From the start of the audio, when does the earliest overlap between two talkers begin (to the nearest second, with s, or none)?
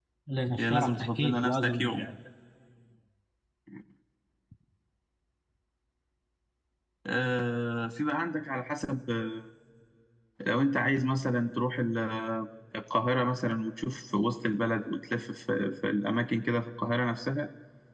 1 s